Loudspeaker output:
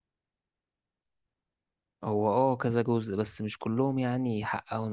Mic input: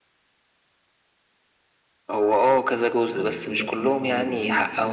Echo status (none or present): present